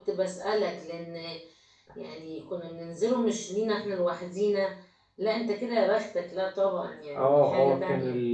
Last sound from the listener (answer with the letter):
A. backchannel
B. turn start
B